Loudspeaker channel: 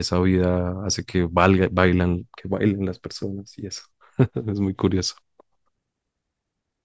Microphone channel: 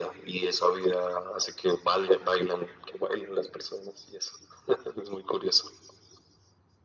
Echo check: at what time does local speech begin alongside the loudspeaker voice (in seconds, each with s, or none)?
none